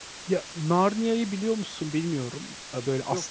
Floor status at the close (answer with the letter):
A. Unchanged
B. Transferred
A